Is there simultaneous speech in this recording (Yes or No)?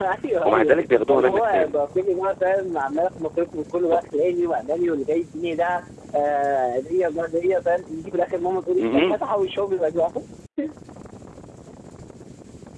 Yes